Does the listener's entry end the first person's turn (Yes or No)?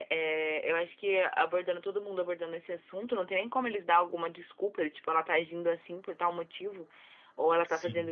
No